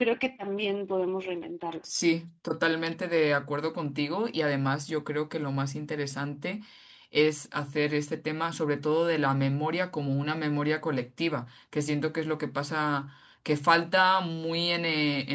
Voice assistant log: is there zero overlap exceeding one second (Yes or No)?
Yes